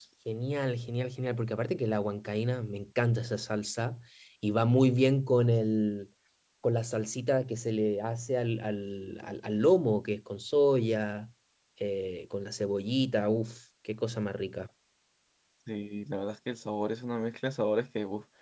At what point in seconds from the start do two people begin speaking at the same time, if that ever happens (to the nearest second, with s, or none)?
none